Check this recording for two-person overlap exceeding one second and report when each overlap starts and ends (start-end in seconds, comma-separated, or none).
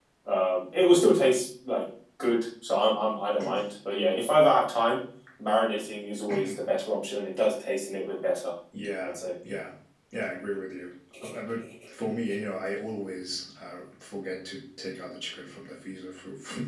none